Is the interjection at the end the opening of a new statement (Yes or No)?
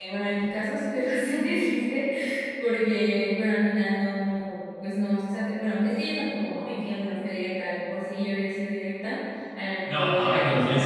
Yes